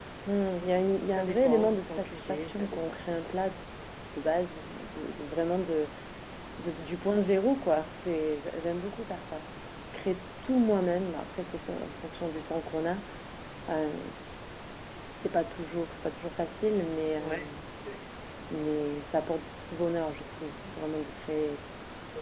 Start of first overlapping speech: 1.1 s

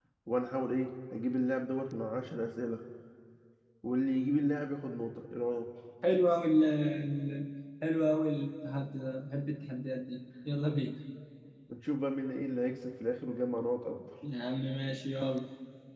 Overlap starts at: none

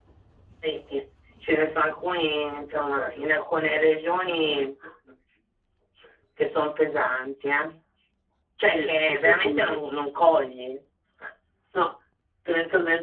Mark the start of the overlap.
8.6 s

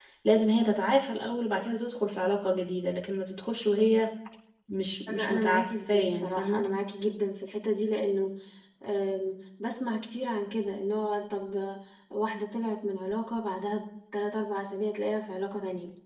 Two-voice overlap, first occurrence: 5.1 s

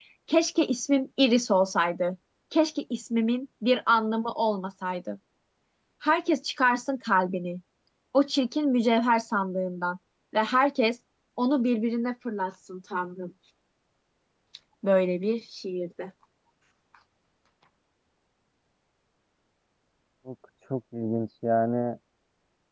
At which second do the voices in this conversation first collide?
none

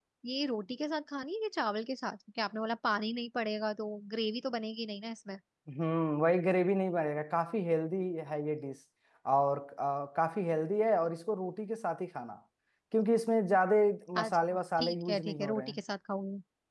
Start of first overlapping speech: 14.2 s

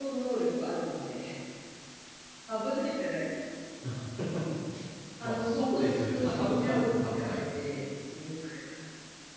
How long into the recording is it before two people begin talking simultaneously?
5.2 s

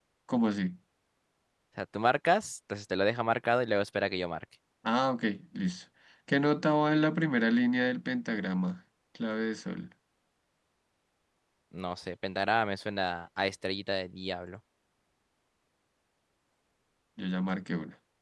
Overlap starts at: none

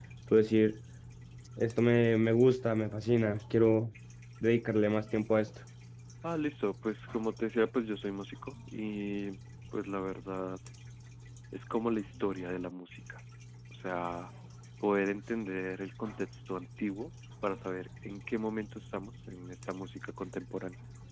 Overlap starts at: none

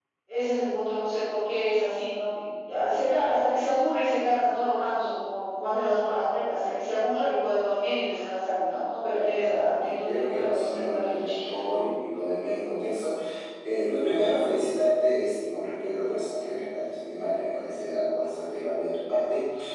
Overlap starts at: 9.1 s

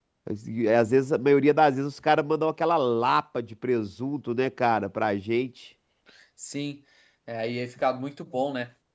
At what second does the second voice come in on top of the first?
none

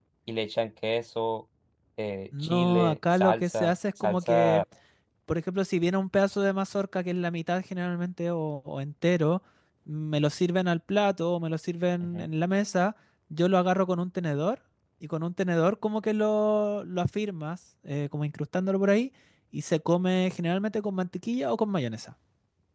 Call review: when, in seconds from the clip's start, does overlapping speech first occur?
2.4 s

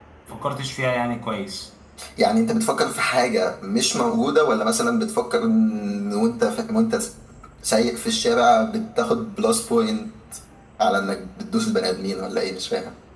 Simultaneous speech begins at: none

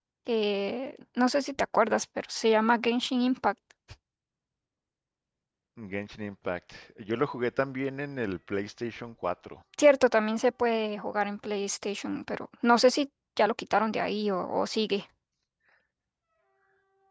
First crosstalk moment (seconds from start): none

